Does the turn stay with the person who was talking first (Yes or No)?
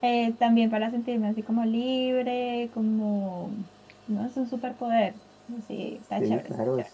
No